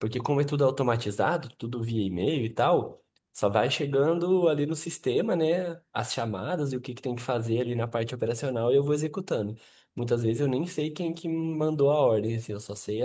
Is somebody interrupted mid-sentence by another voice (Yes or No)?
No